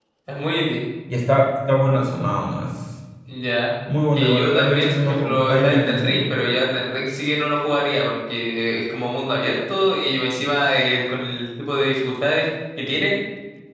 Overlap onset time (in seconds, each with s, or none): 4.1 s